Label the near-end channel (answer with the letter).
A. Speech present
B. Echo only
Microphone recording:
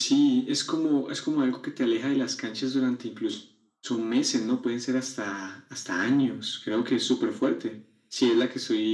B